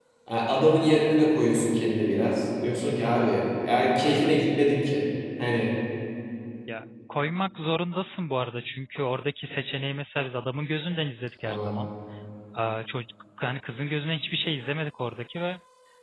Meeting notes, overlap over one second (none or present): none